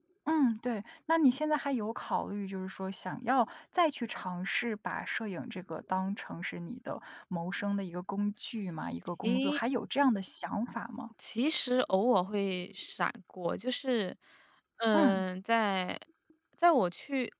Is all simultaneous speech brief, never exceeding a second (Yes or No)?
Yes